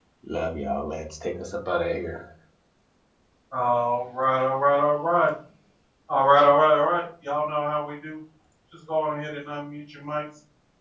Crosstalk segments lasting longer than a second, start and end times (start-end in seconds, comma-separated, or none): none